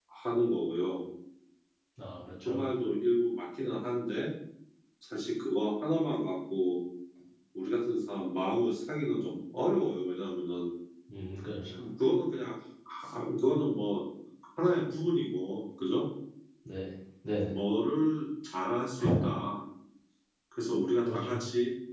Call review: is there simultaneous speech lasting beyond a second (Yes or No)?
No